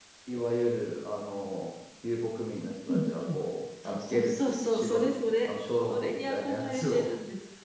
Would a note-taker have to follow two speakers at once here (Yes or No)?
Yes